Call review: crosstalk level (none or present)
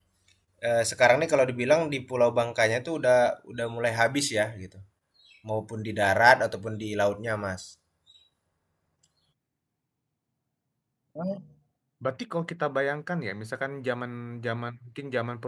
none